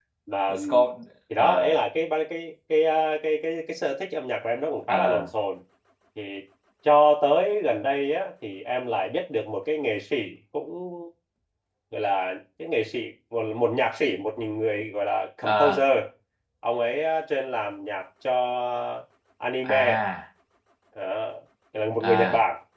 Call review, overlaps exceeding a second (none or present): none